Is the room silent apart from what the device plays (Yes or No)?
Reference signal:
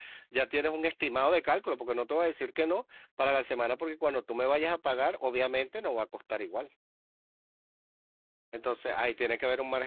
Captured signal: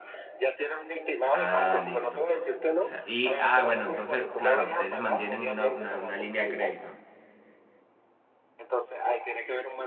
No